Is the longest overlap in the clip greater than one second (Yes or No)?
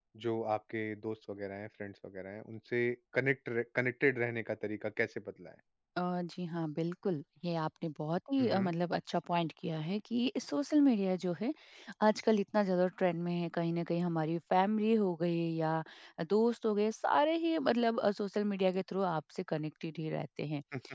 No